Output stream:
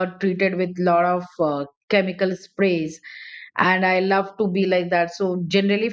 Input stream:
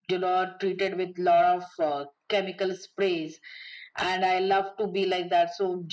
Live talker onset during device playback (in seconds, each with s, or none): none